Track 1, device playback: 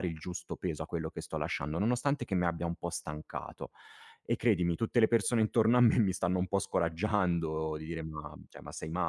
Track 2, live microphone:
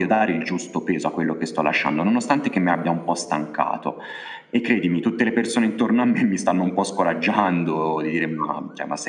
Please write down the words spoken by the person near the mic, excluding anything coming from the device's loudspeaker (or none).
none